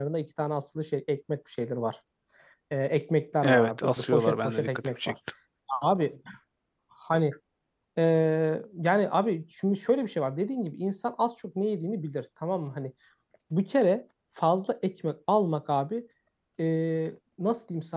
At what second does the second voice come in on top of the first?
3 s

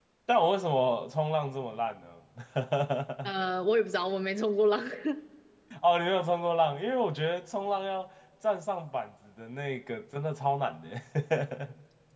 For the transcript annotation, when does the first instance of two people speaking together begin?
none

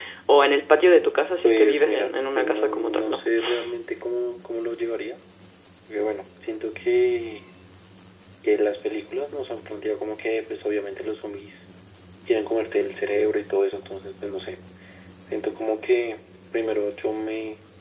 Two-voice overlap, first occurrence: 1 s

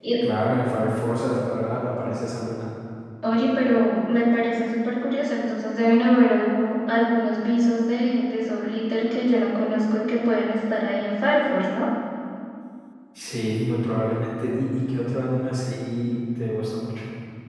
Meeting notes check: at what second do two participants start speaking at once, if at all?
none

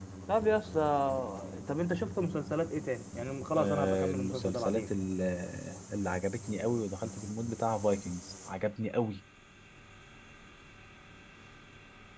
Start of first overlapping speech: 4 s

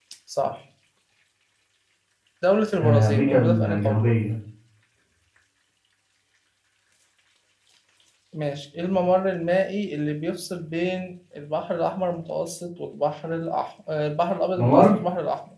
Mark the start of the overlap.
3 s

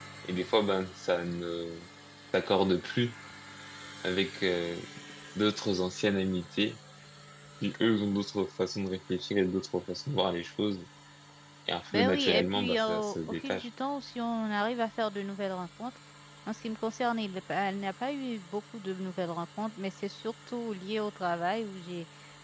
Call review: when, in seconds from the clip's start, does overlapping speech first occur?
12 s

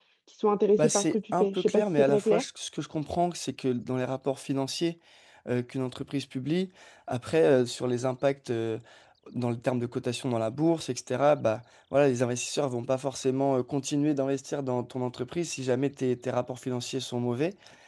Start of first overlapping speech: 1 s

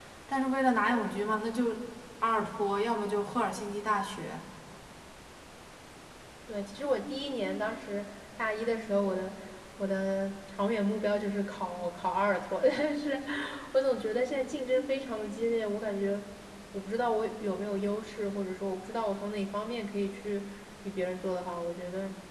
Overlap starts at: none

